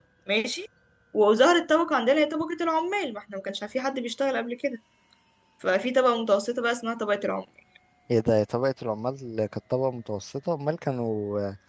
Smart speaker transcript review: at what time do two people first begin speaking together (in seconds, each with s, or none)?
none